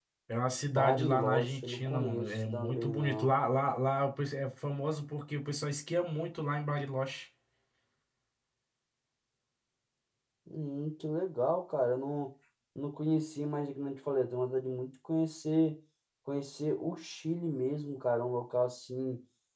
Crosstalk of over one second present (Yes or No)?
Yes